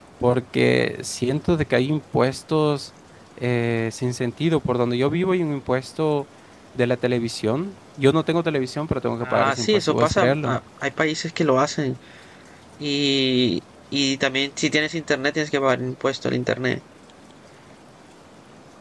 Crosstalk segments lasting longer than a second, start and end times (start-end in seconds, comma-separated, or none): 9.2-10.6